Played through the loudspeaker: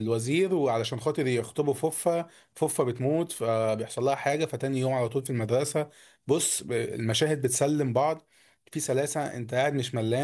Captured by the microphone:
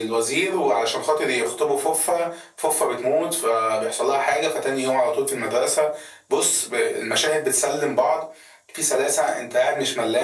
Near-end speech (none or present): none